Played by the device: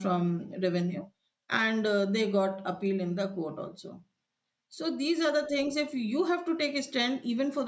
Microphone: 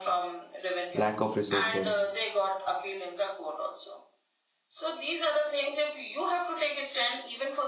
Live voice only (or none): lack of resources.